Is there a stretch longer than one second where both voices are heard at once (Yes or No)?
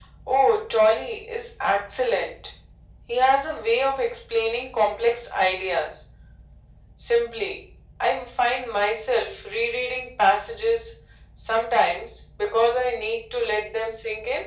No